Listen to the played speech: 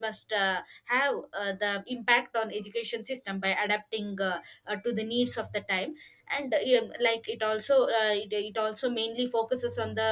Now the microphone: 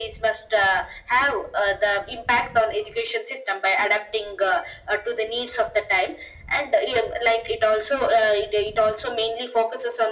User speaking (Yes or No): No